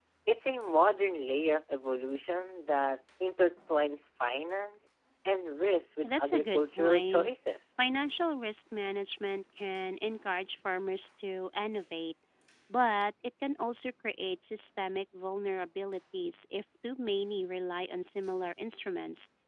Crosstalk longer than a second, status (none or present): present